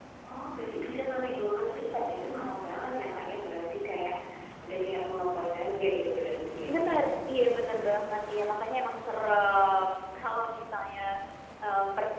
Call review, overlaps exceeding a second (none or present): none